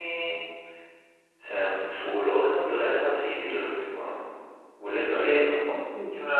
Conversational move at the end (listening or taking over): taking over